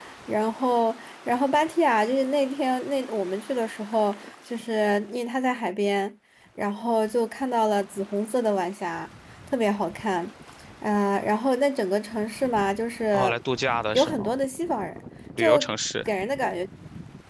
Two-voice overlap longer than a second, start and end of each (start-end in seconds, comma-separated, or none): none